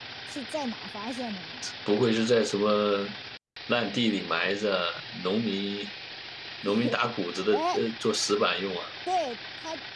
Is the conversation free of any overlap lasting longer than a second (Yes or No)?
Yes